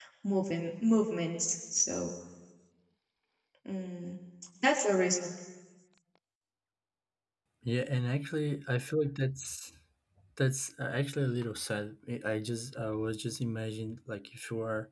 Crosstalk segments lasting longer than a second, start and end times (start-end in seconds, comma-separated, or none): none